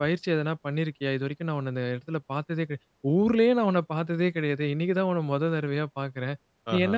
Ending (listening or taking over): listening